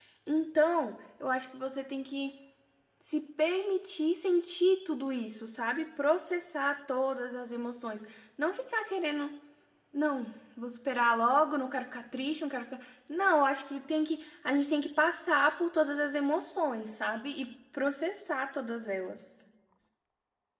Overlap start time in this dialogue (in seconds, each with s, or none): none